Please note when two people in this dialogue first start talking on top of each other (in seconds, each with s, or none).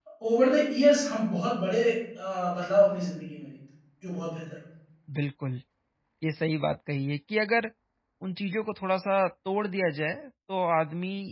none